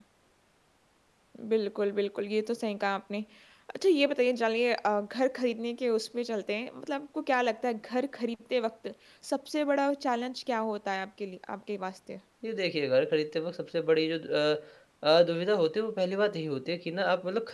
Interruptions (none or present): none